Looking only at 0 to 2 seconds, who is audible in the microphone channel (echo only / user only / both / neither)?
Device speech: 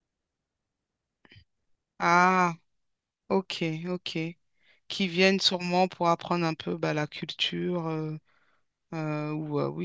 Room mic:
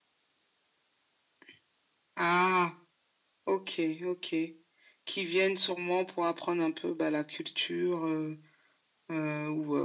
neither